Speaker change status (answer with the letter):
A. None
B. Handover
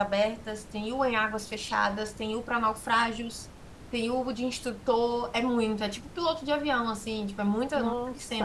B